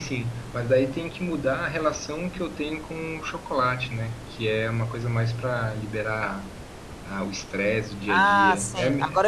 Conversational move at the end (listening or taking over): taking over